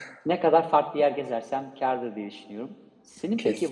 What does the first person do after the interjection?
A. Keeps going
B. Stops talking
A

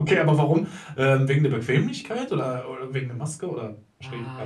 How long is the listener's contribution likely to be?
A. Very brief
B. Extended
B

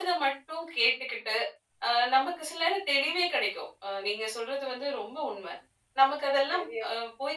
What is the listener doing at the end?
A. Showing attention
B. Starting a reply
A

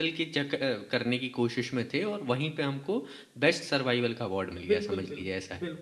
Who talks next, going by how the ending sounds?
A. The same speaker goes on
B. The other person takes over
B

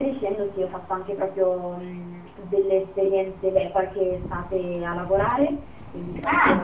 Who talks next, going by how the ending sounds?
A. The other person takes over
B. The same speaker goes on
A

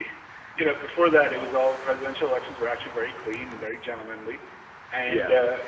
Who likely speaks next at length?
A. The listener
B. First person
B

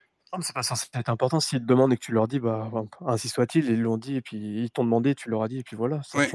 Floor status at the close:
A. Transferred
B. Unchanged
A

